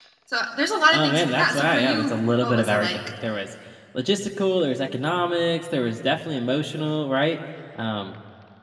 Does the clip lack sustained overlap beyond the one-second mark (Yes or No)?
No